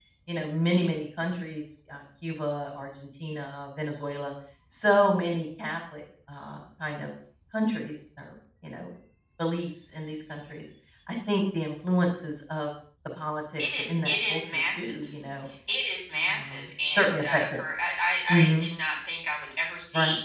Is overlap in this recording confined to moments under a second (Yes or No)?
No